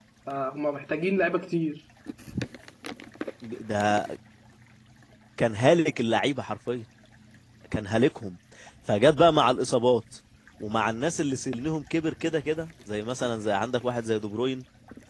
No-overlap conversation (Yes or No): Yes